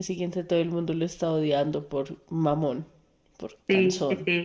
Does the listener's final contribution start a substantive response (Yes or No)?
Yes